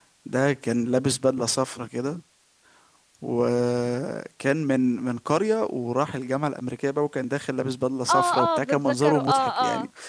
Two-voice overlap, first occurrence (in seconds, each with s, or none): 8.1 s